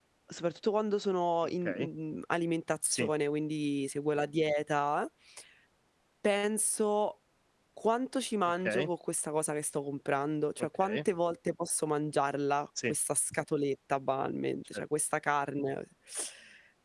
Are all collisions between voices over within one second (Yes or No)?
Yes